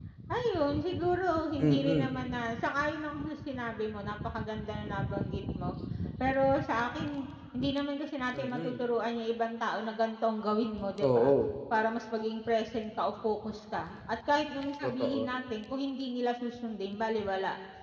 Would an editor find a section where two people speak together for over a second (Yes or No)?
No